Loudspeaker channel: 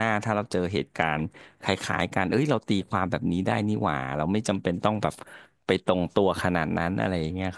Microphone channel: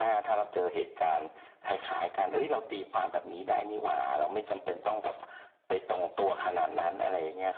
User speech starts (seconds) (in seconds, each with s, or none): none